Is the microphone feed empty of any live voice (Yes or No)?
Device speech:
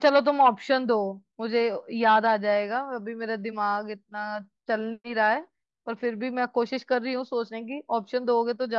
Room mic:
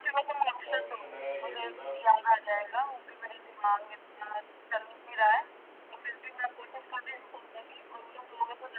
No